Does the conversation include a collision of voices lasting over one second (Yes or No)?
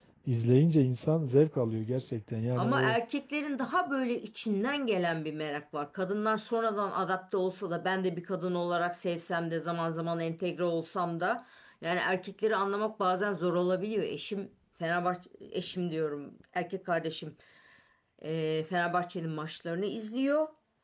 No